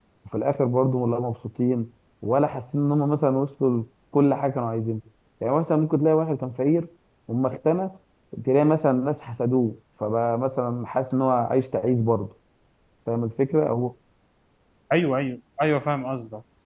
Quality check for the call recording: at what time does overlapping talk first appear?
none

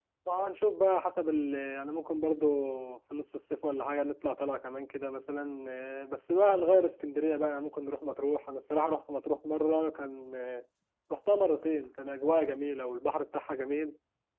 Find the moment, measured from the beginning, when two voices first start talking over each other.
none

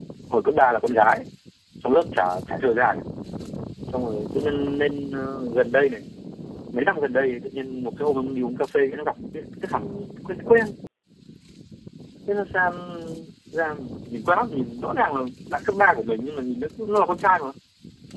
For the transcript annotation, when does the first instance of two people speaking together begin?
none

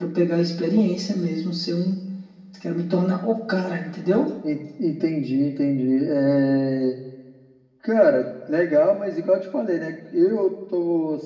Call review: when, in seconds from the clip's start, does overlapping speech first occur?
none

